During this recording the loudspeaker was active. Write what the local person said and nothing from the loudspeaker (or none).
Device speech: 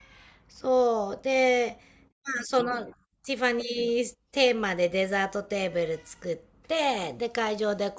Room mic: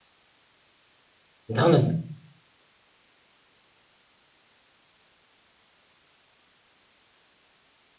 なんだ、